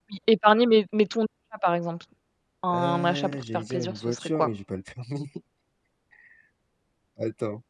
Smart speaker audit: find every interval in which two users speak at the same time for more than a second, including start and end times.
2.7-4.5

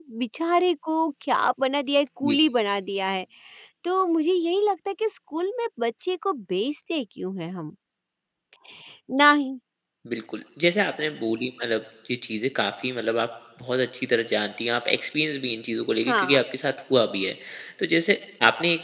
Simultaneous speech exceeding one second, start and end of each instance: none

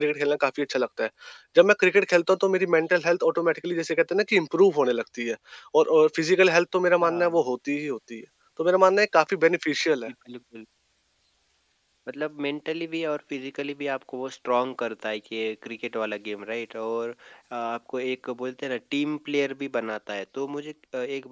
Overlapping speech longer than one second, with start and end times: none

